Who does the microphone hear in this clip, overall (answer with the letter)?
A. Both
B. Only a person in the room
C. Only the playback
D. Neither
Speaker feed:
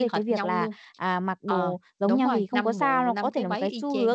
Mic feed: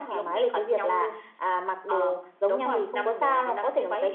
C